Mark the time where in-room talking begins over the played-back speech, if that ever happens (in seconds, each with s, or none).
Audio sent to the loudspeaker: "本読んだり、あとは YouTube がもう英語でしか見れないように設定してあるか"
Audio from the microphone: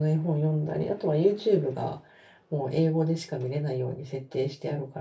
none